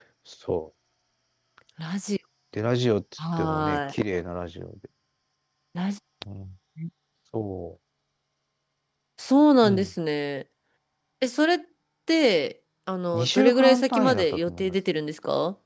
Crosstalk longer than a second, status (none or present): present